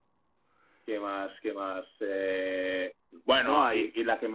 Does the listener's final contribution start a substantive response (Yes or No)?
No